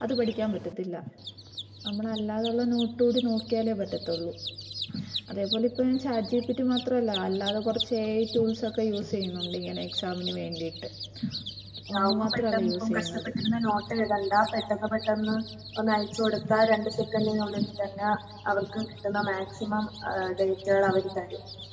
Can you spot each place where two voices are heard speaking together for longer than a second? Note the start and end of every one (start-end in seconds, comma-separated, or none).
11.9-13.3